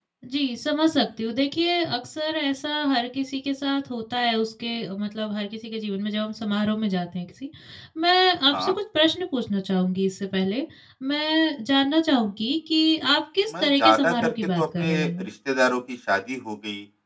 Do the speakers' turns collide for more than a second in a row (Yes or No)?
Yes